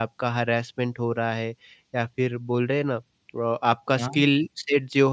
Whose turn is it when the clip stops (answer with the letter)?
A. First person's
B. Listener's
A